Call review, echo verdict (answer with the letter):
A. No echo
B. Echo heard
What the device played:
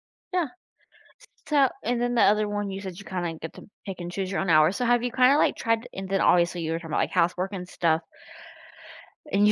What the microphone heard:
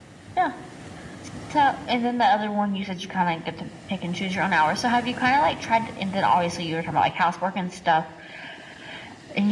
B